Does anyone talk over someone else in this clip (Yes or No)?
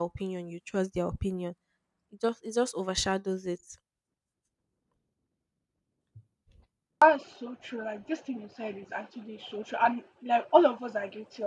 No